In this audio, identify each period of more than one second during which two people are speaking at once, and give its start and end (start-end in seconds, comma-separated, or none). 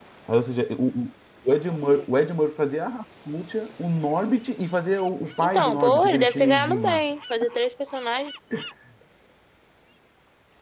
5.4-7.0